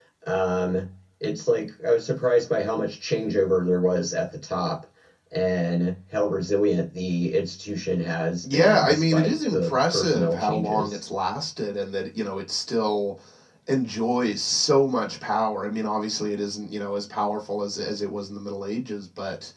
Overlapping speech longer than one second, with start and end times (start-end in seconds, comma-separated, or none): 8.4-11.0